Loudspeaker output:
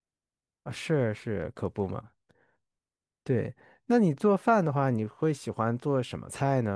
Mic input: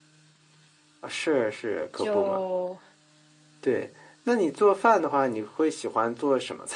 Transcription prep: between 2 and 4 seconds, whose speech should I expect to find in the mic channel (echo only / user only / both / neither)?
both